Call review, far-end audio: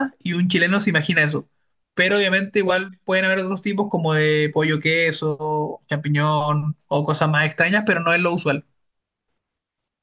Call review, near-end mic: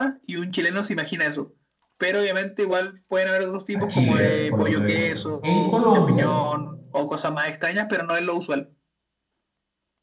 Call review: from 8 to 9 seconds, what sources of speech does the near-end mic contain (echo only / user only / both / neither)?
echo only